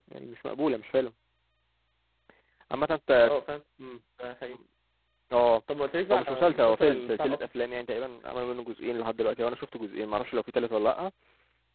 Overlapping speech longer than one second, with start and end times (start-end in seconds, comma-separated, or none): 6.1-7.4